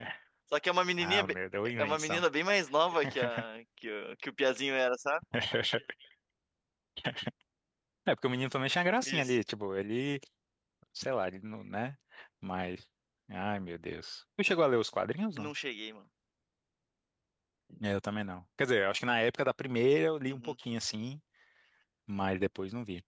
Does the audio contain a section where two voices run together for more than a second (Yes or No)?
No